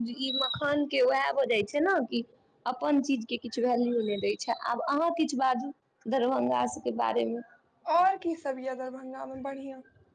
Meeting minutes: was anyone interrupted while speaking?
No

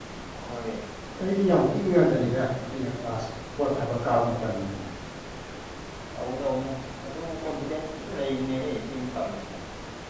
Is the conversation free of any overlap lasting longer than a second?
Yes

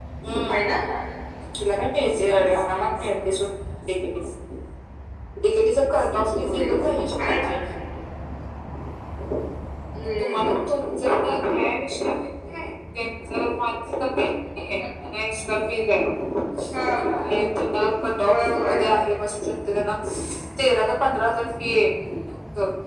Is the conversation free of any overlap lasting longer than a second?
Yes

